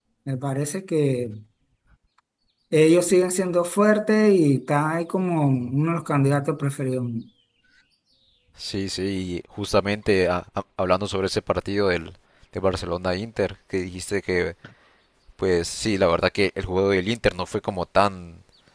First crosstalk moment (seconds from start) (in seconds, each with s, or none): none